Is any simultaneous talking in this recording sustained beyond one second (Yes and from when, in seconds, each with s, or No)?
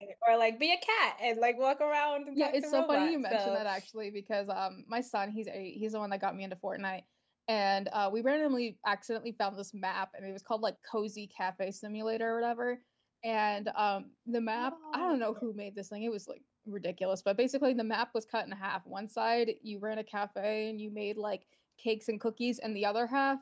Yes, from 2.4 s